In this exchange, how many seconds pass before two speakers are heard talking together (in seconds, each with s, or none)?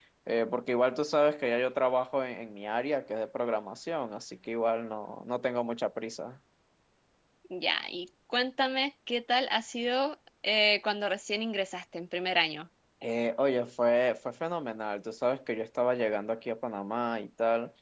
none